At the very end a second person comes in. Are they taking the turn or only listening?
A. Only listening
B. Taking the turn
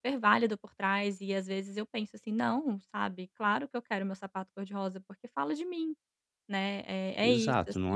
B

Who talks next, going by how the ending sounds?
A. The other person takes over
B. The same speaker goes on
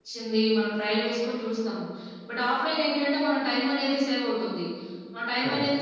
B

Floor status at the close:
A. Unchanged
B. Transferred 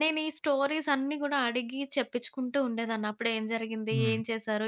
A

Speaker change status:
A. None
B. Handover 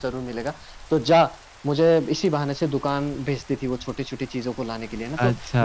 A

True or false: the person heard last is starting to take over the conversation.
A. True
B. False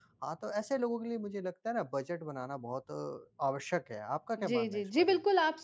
A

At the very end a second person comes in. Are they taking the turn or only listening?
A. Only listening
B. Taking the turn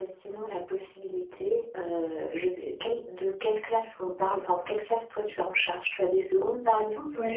B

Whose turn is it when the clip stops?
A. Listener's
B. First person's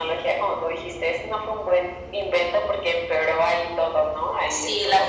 A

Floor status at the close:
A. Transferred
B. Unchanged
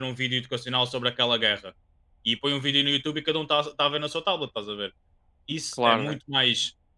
B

